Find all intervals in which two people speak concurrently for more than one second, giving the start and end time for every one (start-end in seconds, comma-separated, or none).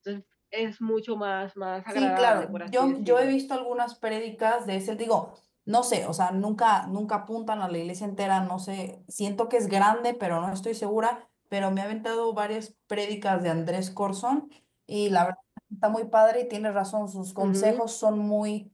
1.9-3.3